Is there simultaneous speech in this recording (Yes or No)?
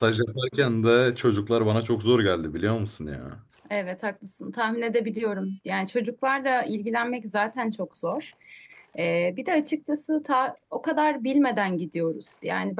No